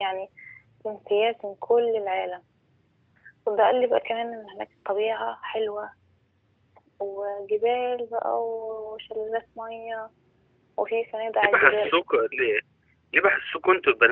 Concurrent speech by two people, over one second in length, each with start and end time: none

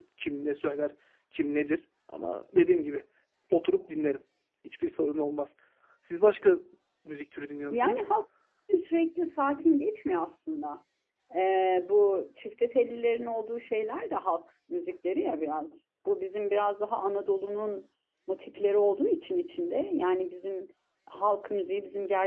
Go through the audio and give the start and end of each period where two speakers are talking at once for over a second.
none

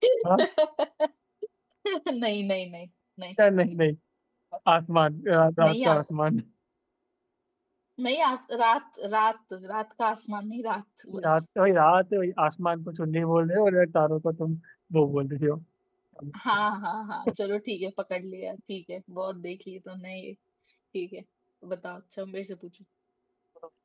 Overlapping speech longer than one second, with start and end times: none

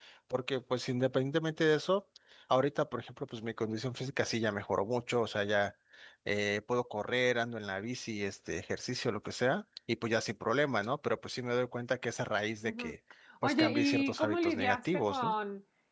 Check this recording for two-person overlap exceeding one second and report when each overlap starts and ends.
13.4-15.3

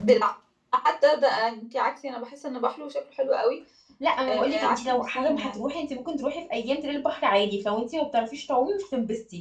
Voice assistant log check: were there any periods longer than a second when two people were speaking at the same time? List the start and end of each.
4.3-5.6

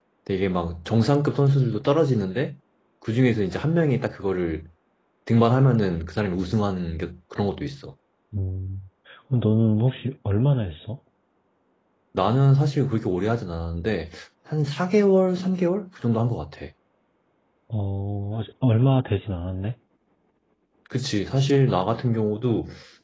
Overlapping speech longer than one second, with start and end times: none

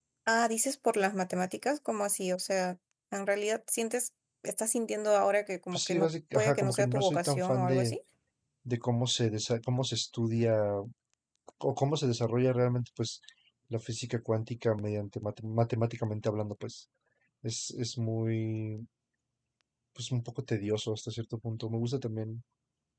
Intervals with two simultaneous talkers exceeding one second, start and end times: 5.7-8.0

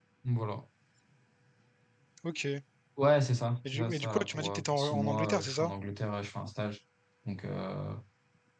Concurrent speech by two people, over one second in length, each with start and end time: 3.7-5.7

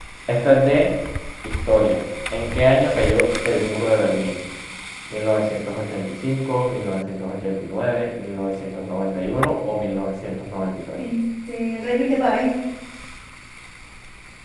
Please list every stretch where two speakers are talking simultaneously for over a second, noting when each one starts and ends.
none

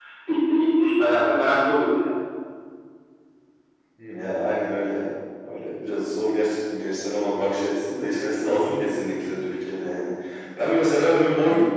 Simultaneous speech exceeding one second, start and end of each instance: none

